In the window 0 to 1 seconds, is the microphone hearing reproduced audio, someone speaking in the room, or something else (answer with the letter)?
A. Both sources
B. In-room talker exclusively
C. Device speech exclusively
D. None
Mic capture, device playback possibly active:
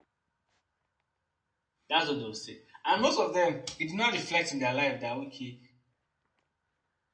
D